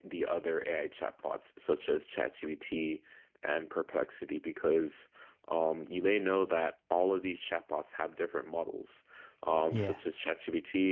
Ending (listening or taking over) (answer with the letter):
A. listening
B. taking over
A